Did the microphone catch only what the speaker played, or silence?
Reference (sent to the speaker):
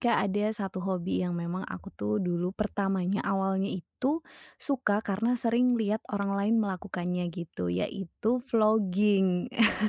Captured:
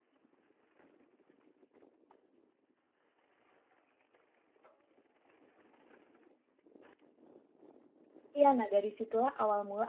No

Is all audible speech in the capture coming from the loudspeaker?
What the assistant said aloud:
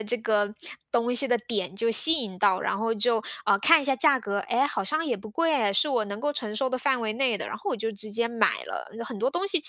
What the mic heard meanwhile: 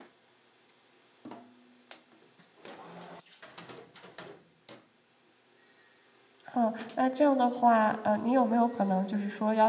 No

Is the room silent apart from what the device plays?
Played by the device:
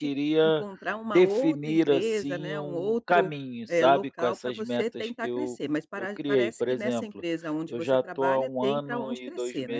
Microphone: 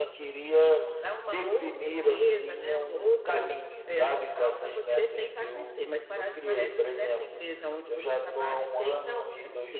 Yes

